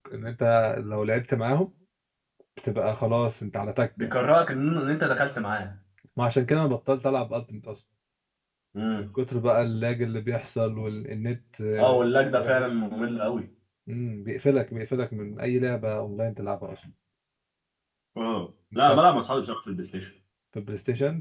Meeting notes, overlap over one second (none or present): none